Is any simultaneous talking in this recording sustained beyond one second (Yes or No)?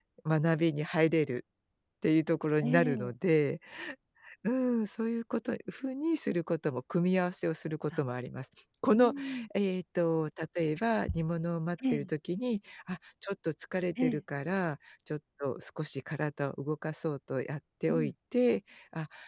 No